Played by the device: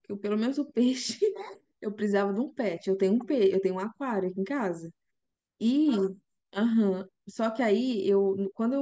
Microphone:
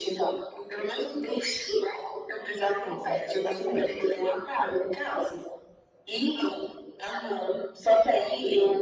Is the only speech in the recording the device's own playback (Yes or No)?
No